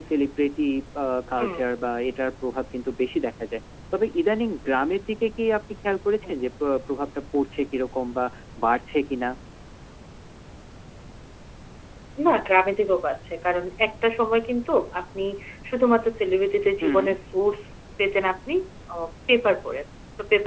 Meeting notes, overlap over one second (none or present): none